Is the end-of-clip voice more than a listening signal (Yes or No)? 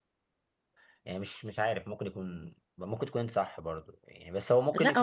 Yes